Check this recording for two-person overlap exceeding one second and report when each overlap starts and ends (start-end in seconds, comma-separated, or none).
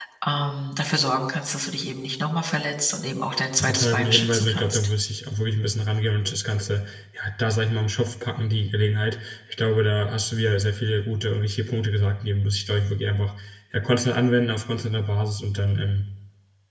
3.6-4.9